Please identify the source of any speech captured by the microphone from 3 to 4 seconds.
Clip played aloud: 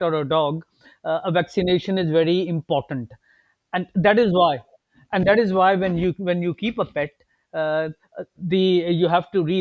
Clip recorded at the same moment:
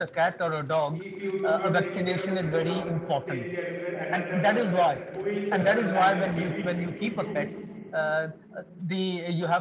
both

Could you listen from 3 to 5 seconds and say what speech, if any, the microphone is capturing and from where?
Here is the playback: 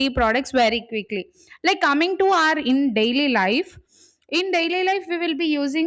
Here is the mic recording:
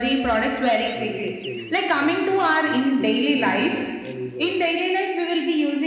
both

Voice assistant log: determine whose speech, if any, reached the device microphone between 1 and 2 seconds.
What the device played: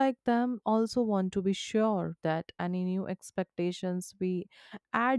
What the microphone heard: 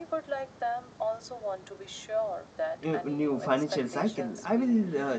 echo only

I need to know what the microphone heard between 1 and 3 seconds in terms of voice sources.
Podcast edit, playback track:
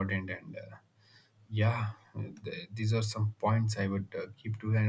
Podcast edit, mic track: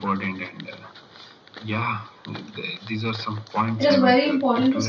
echo only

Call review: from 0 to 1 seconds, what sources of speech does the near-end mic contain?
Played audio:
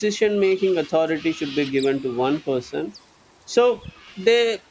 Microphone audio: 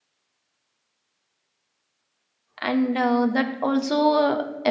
neither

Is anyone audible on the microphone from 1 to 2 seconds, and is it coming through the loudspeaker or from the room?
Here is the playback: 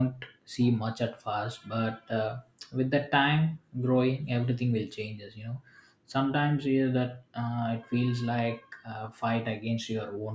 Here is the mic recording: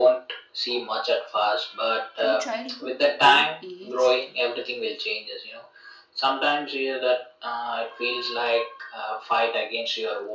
echo only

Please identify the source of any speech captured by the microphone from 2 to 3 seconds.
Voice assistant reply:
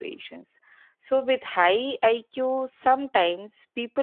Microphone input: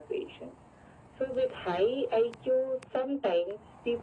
echo only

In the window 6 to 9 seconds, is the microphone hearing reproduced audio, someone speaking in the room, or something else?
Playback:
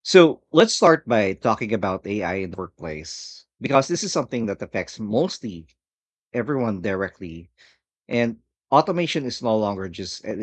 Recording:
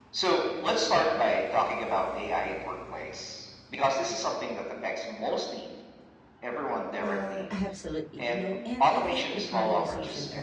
both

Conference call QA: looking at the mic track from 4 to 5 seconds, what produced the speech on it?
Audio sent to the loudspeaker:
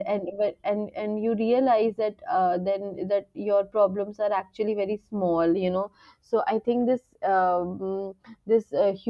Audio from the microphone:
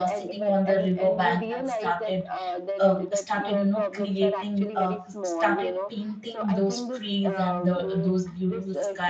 both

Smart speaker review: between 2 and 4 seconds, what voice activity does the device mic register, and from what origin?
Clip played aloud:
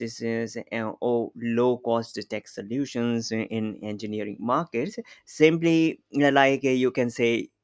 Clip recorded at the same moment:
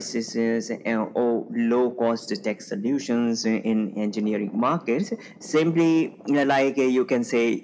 echo only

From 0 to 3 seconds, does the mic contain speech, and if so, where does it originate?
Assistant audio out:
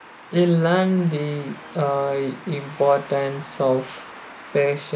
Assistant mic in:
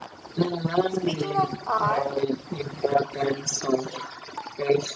both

